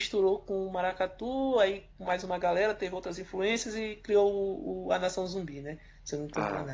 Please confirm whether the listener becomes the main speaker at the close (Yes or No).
No